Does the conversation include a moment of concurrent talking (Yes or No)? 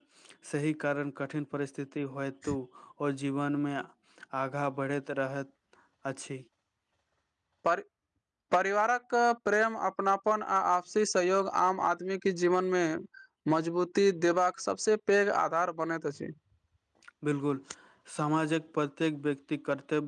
No